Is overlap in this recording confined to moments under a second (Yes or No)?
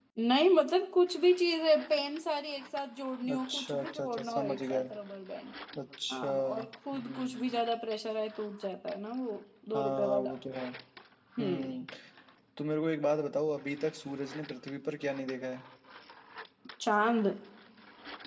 No